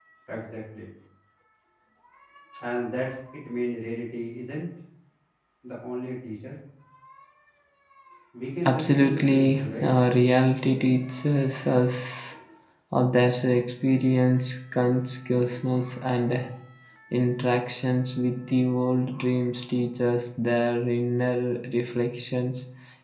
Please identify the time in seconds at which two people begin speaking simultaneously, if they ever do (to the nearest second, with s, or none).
9 s